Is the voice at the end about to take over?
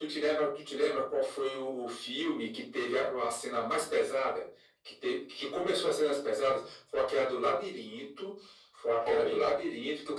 No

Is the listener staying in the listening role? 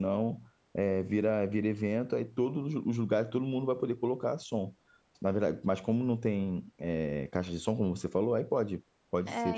No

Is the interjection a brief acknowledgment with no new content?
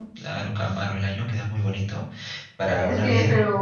No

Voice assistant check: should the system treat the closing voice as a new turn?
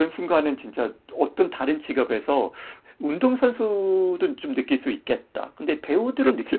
Yes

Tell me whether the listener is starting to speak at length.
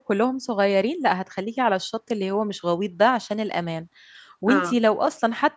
No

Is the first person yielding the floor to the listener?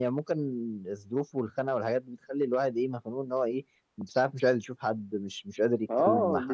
Yes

